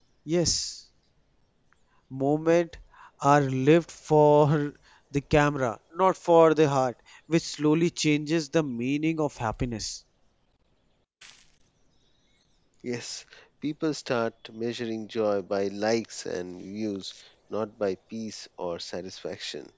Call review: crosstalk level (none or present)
none